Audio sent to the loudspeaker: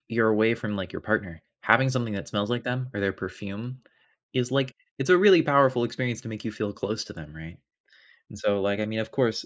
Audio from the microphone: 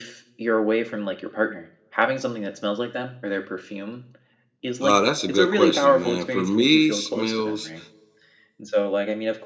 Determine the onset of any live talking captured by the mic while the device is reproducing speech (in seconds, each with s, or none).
4.8 s